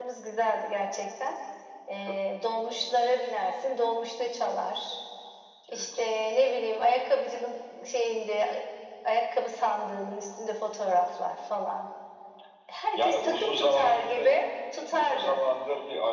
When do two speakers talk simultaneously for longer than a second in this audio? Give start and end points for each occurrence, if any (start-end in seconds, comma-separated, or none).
13.0-14.3